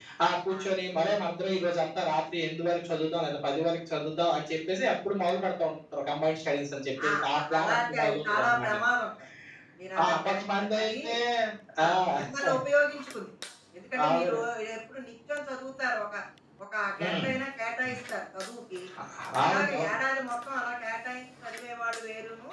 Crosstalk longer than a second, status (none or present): present